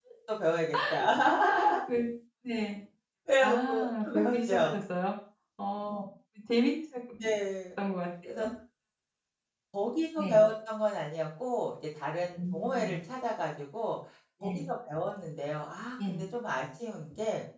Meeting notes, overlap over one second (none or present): present